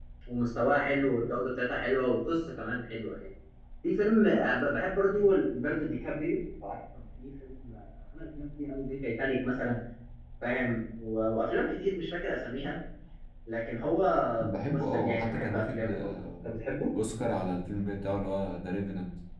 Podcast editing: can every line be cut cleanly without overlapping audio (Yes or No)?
No